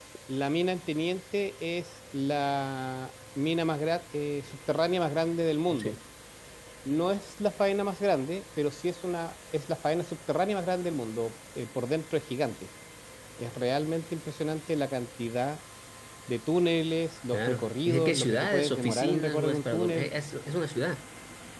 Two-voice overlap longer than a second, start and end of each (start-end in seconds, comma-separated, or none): 17.3-20.1